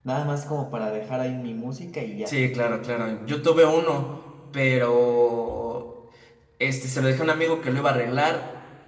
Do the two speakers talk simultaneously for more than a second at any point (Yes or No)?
No